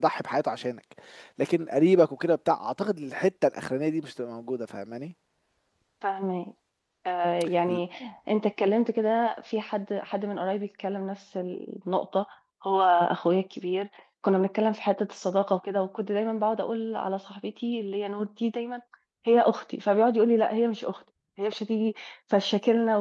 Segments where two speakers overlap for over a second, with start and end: none

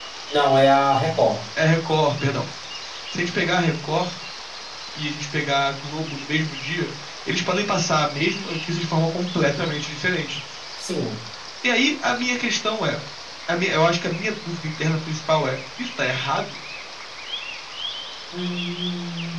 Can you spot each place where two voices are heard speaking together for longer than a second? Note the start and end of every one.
none

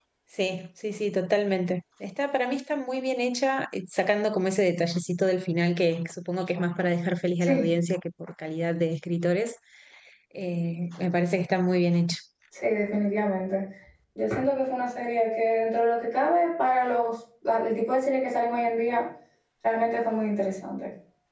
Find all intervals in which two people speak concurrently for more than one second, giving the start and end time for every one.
none

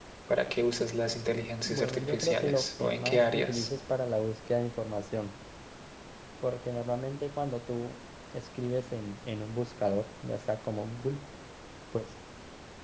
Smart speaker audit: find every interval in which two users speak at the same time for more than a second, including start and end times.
1.6-3.7

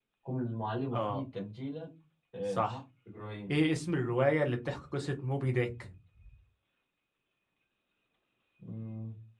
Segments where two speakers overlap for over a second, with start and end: none

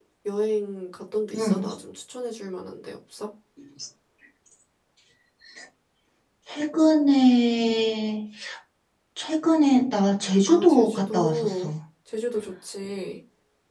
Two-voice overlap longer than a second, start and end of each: 10.5-11.7

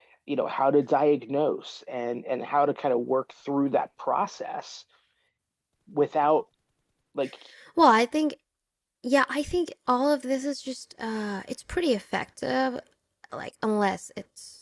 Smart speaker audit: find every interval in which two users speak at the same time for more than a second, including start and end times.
none

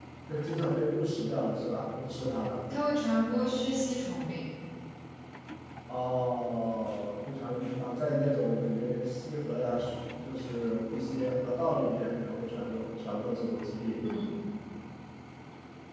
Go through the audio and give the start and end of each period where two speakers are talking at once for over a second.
none

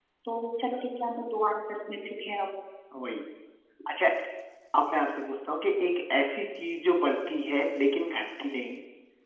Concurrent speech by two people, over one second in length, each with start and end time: none

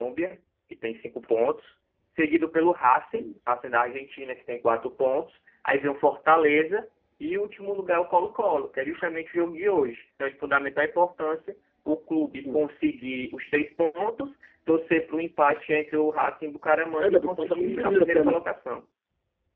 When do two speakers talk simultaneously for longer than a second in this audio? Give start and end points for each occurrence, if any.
17.1-18.4

